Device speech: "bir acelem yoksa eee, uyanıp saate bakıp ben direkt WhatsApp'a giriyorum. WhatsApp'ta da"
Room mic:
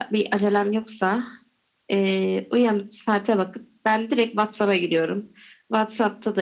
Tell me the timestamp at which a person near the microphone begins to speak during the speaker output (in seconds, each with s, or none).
none